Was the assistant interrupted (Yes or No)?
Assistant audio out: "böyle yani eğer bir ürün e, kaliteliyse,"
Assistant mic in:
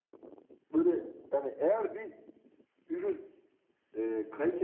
No